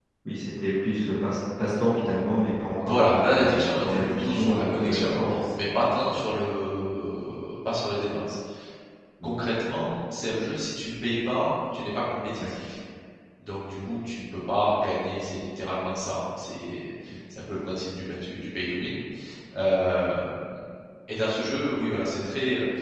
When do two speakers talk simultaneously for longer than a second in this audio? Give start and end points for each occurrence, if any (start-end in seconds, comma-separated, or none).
2.8-5.6